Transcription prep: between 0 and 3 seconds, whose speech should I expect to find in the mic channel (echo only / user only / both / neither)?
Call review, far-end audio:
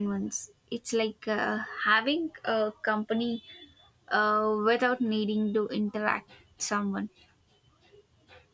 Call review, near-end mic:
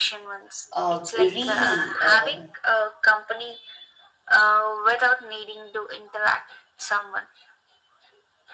both